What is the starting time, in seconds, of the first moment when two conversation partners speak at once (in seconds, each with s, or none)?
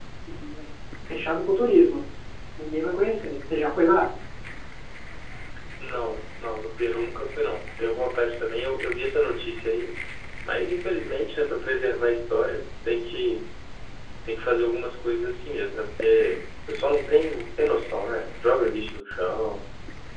none